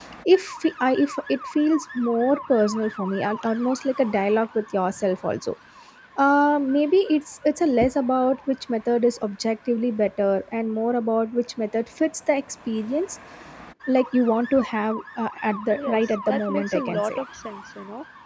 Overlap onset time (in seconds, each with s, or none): 15.7 s